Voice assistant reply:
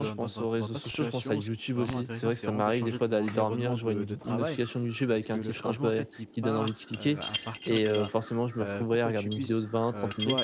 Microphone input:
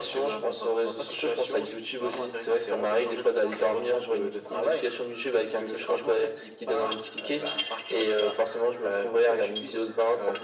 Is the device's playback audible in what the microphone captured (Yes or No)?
Yes